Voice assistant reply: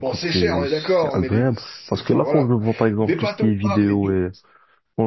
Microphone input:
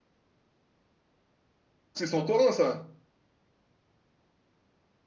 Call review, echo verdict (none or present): none